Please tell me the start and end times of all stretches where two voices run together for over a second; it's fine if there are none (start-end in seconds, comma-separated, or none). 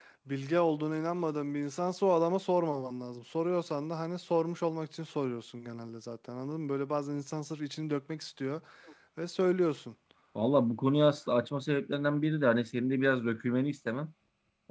none